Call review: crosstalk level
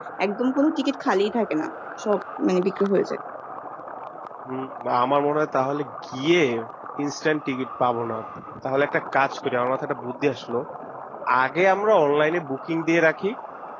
none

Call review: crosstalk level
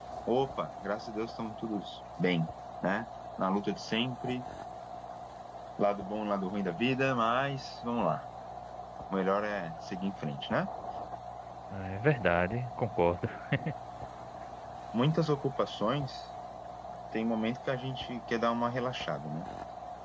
none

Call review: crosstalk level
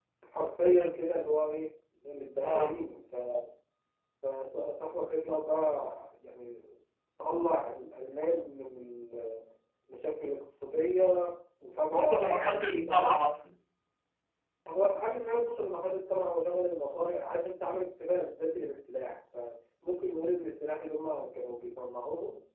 present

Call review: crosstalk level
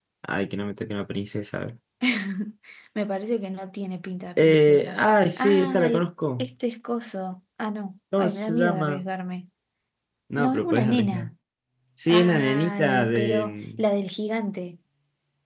present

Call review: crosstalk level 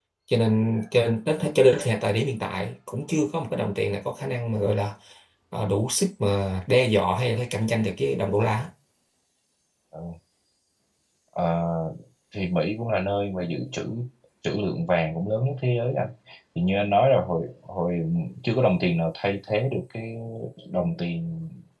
none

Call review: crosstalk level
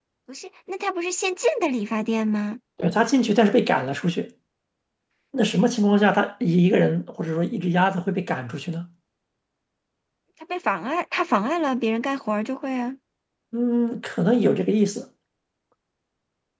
none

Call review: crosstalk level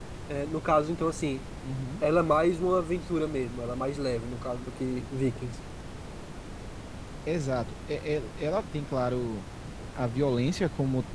none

